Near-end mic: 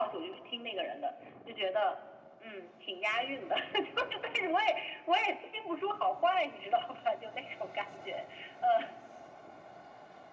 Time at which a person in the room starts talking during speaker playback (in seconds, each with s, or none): none